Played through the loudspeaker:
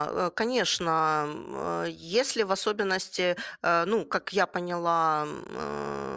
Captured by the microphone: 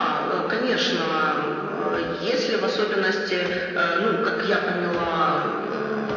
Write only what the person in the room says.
none

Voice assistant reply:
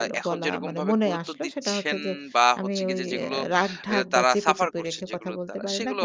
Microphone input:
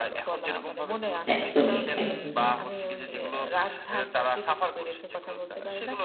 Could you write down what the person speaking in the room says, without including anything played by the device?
একদমই, একদমই,

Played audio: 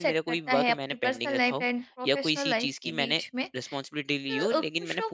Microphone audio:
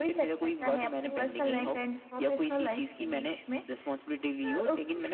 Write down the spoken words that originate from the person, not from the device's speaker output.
ओके।

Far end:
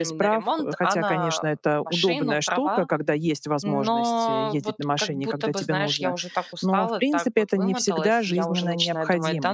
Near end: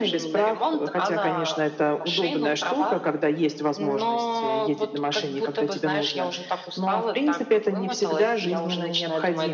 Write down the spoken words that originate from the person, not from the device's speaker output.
none

